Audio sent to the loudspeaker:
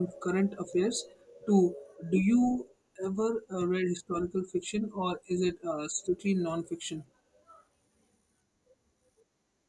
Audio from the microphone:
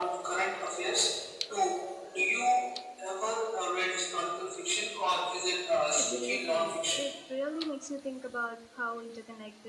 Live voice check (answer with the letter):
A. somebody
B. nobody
A